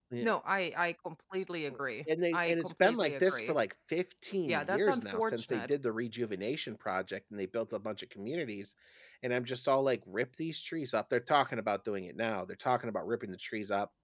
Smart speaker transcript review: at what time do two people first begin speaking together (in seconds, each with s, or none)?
2.3 s